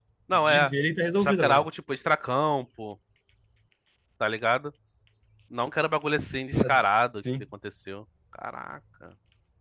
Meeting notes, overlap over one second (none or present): none